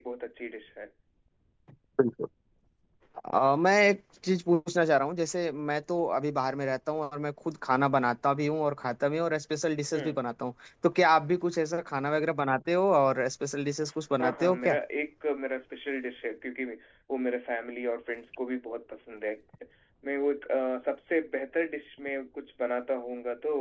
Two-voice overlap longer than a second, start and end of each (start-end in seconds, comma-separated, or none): none